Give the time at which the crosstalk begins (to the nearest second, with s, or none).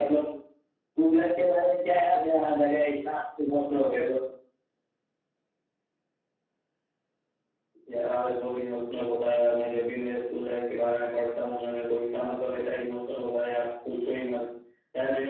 none